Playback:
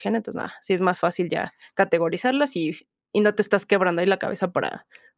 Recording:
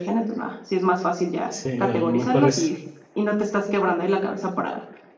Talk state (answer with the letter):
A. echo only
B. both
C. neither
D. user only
B